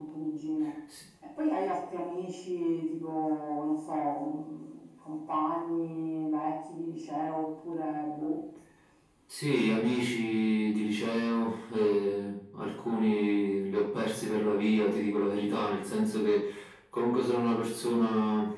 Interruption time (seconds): none

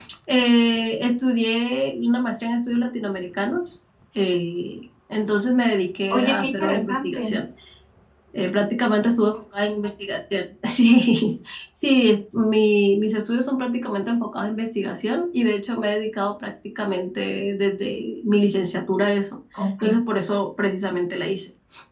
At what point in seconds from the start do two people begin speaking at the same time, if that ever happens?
6 s

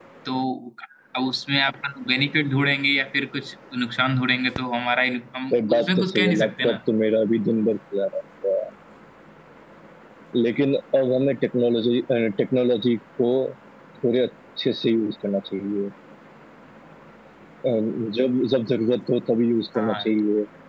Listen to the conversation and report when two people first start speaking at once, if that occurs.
6 s

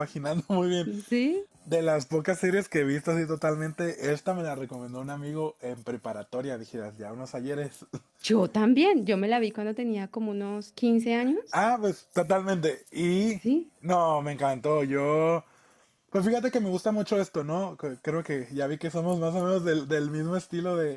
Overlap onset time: none

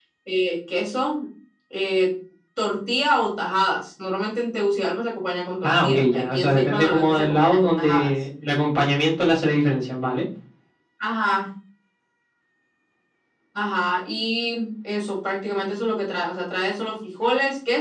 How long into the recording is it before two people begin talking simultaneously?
6 s

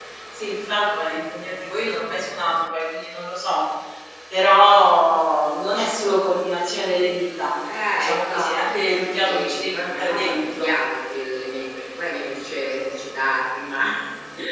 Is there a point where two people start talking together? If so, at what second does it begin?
8 s

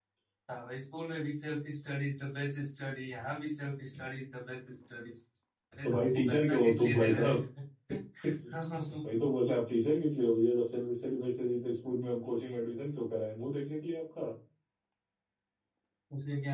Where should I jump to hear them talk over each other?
6 s

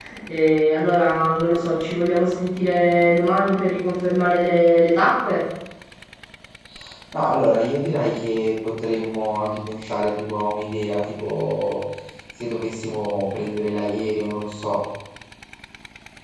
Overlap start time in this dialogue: none

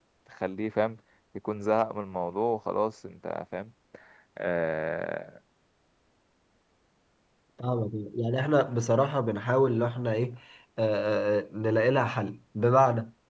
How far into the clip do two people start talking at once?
none

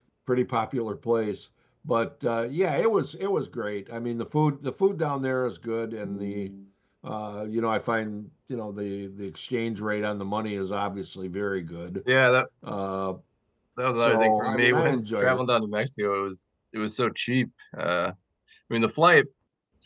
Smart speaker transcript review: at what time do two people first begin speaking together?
14 s

